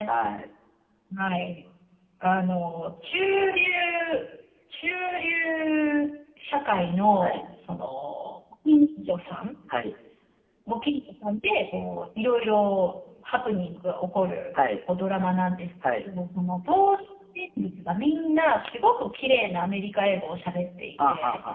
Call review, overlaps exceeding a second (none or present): none